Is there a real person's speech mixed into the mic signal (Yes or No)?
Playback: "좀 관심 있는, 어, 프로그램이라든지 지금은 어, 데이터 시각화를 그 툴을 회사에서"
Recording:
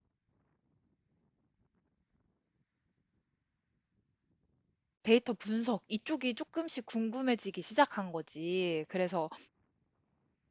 Yes